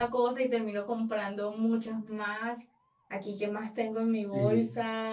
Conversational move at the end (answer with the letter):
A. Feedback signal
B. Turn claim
A